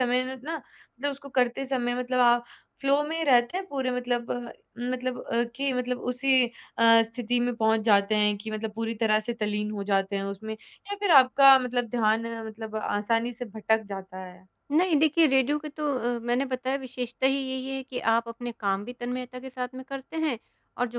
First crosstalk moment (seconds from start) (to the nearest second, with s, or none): none